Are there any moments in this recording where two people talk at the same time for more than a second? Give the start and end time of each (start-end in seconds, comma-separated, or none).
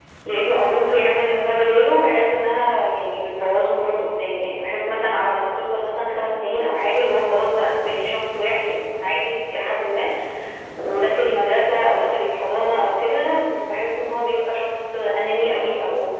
none